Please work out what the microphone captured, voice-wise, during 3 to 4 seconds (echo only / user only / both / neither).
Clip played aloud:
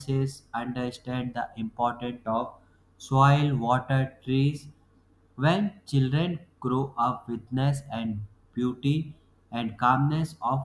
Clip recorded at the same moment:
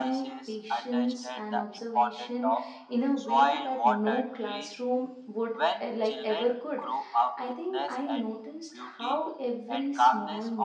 both